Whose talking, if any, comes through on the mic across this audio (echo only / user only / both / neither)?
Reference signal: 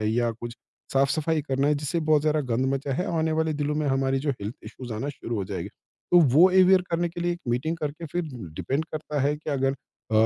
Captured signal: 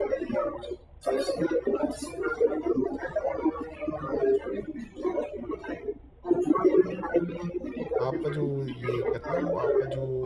both